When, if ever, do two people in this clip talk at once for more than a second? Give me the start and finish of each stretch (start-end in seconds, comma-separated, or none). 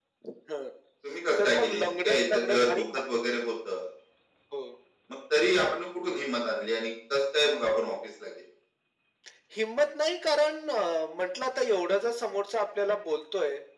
1.4-3.0